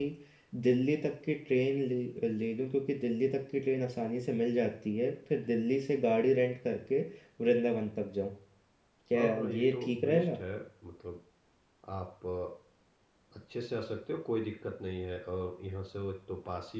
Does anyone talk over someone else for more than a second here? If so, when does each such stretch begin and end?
9.1-10.4

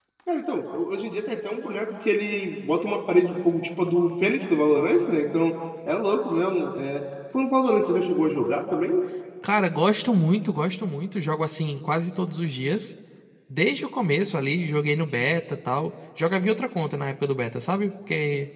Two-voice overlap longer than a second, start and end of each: none

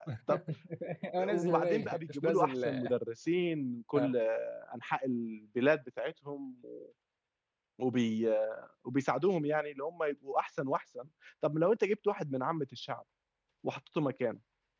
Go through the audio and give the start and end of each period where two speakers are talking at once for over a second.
1.3-2.6

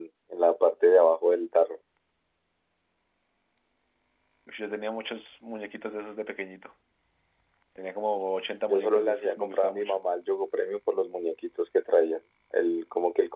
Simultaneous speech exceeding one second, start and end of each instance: 8.7-9.9

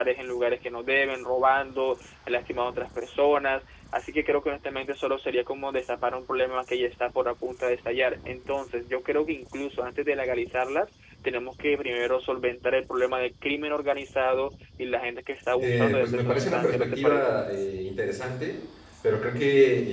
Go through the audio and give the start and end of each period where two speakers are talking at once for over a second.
15.6-17.4

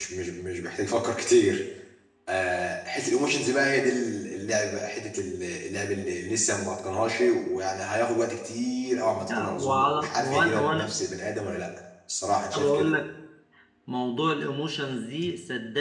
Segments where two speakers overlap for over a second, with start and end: 9.2-10.9

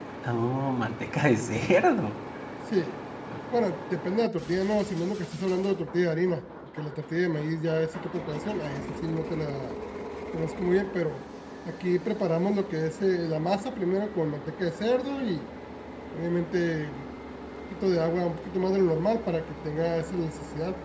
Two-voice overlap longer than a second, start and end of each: none

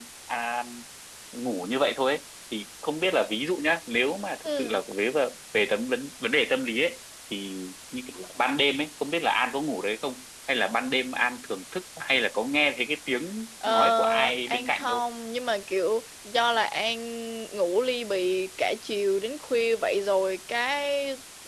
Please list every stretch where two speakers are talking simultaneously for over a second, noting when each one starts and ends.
13.6-15.0

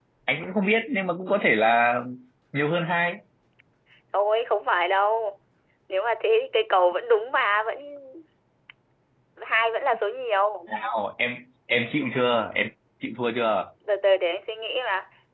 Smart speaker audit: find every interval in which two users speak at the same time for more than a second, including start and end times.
none

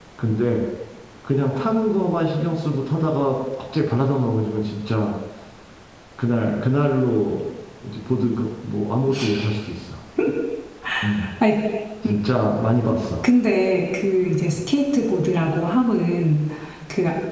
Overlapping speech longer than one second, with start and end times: none

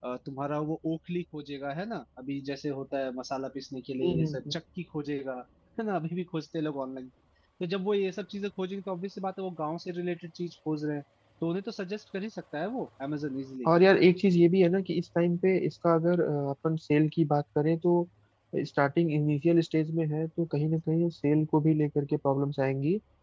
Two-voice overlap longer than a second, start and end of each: none

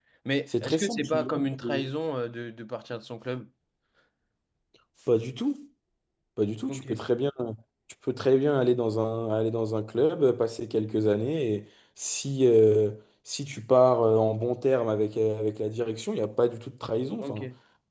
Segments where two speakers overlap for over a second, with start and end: 0.6-1.9

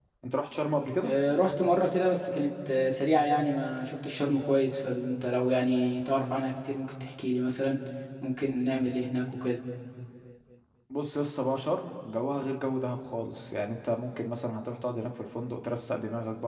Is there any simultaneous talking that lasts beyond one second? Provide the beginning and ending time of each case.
none

